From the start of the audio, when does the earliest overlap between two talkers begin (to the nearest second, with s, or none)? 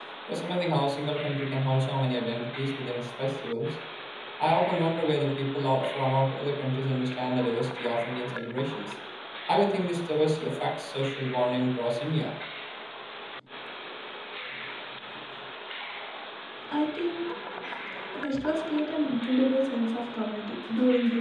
none